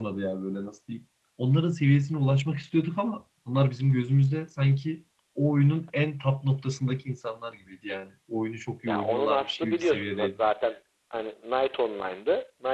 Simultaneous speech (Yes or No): Yes